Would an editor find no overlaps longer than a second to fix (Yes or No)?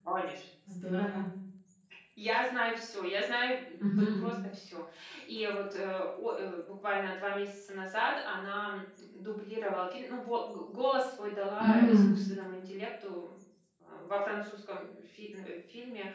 Yes